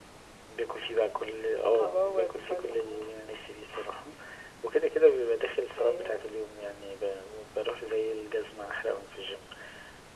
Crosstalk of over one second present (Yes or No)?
Yes